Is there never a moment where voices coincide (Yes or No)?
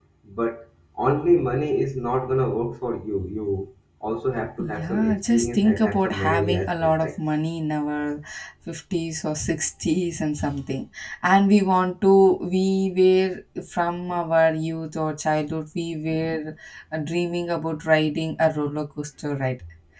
No